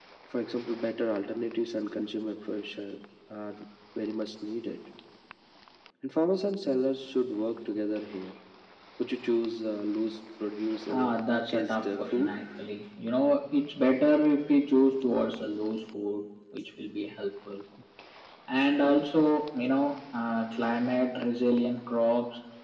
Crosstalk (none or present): present